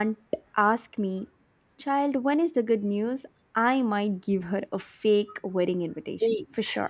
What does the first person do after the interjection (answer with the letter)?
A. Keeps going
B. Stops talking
B